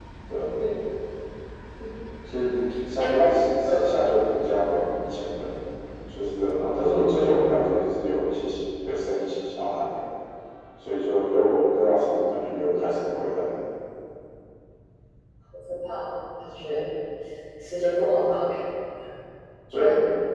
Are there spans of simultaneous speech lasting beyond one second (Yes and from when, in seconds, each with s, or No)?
No